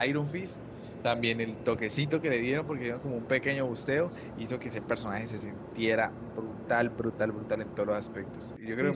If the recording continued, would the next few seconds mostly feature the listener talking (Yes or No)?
Yes